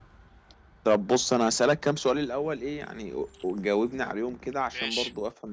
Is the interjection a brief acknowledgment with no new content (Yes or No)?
Yes